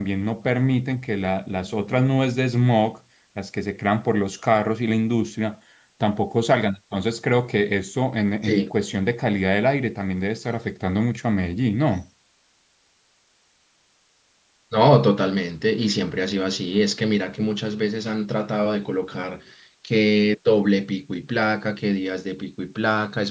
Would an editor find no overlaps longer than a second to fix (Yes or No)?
Yes